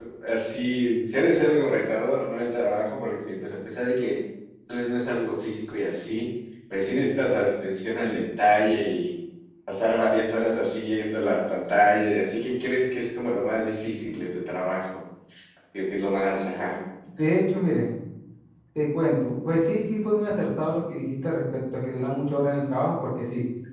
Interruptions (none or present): none